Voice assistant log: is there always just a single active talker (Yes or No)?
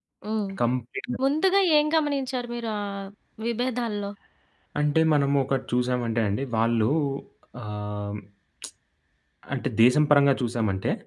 Yes